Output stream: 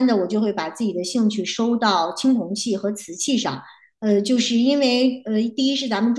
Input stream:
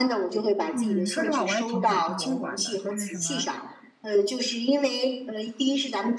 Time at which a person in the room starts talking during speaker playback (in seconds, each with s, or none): 0.7 s